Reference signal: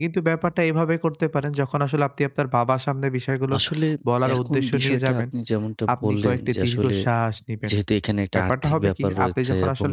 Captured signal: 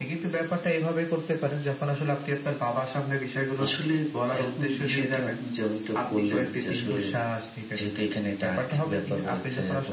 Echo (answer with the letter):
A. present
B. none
A